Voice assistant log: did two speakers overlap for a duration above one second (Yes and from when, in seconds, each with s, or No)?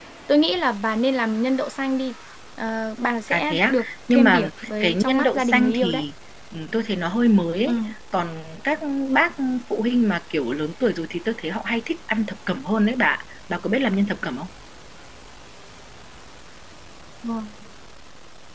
Yes, from 3.3 s